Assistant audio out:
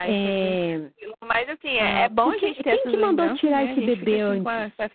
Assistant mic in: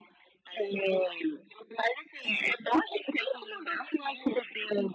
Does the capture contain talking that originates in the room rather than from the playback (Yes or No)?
No